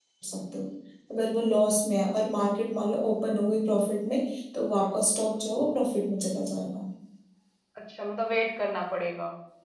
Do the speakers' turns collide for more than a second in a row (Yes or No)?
No